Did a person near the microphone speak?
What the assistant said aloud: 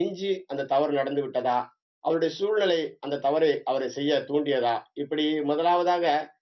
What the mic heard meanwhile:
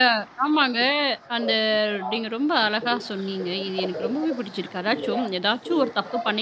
Yes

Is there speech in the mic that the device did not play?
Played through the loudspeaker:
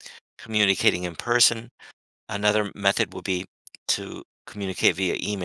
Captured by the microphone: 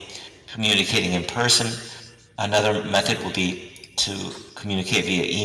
No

